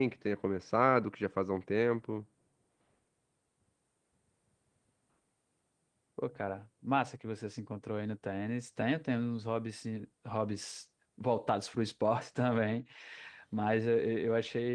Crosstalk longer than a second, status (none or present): none